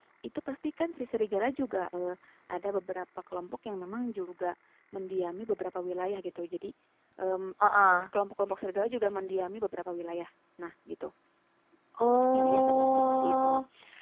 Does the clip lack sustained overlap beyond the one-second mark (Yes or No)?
No